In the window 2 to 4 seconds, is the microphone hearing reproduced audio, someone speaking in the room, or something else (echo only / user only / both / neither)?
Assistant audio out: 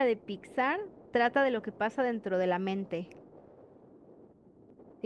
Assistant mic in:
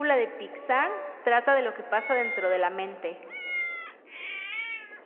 echo only